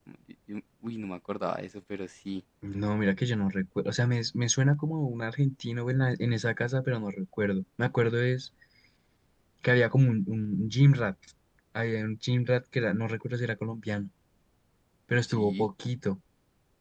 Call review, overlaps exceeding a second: none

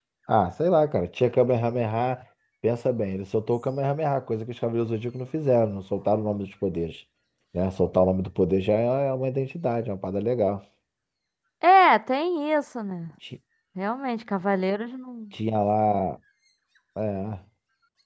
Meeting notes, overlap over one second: none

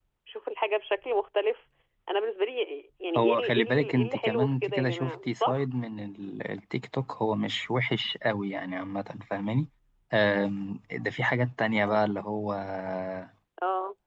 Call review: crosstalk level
present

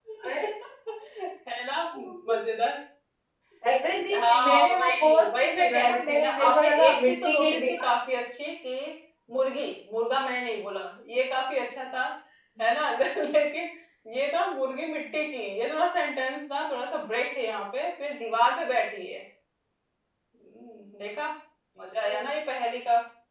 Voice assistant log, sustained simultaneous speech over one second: present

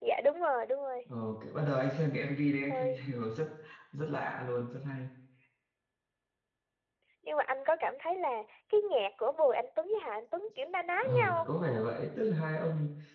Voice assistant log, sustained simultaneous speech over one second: none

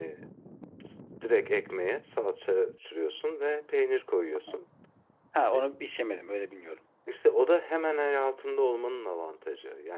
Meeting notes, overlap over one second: none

